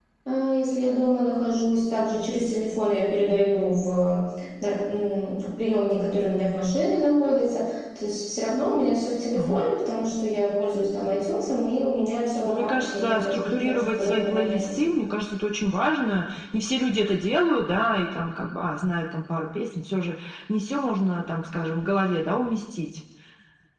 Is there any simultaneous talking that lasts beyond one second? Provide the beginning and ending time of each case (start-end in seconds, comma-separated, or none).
12.4-15.0